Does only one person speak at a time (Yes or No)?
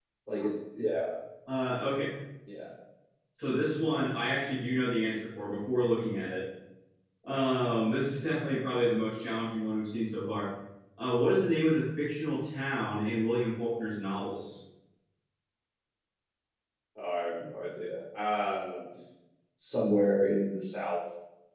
Yes